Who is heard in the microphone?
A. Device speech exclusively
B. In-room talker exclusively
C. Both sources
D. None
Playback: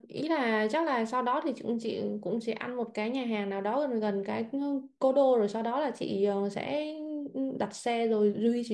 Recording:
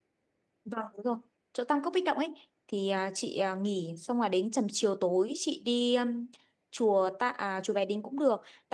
B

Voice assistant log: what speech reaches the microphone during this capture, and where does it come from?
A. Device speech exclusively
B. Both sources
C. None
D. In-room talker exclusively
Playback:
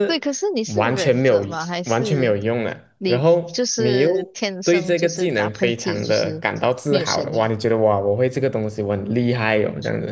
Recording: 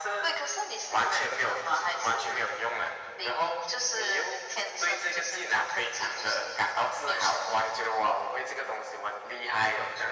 A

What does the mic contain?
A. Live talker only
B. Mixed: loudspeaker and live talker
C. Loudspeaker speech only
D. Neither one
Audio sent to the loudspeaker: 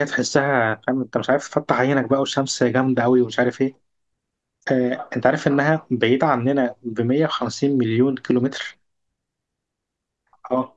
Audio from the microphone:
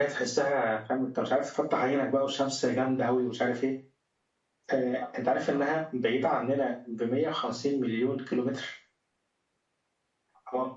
C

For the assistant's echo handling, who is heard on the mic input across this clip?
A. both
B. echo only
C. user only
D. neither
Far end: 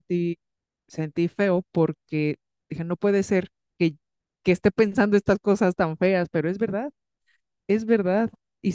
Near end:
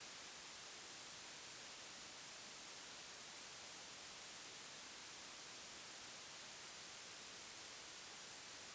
D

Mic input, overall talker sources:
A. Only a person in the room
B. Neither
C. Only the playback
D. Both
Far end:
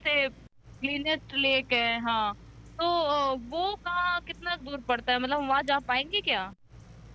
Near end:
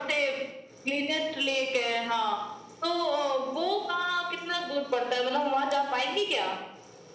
C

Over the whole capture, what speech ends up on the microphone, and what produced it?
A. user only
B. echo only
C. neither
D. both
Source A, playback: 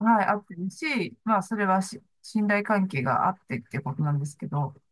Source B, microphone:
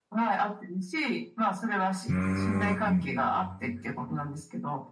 D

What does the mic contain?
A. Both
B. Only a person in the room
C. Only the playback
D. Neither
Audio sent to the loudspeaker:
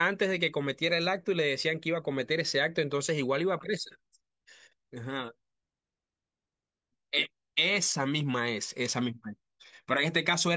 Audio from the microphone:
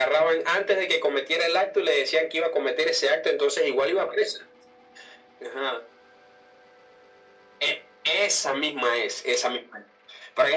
C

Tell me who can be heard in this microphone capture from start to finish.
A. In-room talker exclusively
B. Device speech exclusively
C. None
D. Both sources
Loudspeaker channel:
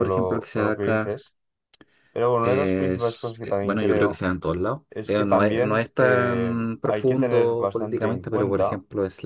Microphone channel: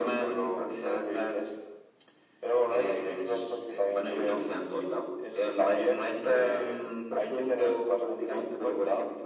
B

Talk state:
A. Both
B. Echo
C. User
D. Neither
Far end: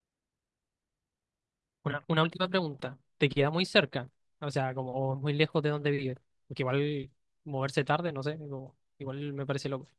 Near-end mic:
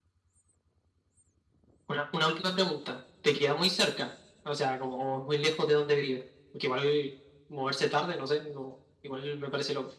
B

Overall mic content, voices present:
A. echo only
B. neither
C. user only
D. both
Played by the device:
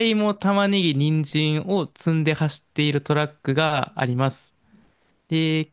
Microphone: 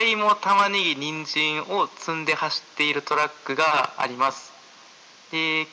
A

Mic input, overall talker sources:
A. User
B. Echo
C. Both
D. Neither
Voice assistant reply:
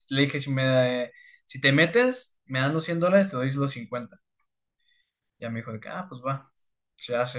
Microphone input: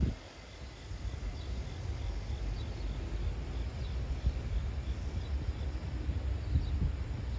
D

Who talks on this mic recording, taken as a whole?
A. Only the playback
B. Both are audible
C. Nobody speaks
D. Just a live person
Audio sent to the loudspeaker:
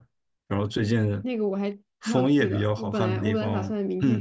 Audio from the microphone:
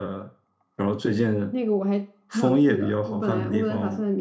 A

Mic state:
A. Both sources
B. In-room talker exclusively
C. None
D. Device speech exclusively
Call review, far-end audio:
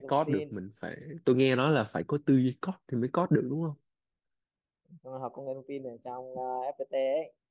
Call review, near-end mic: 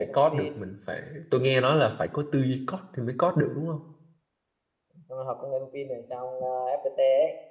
D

